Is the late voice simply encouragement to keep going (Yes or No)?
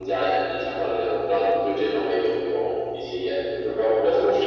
Yes